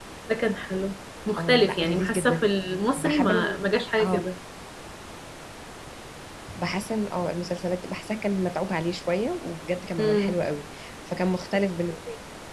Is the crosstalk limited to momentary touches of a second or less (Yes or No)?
No